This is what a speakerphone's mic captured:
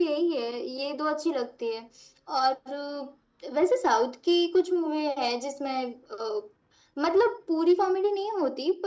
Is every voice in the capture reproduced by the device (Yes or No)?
Yes